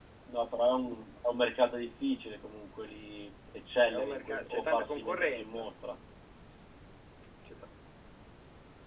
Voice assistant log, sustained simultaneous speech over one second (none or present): present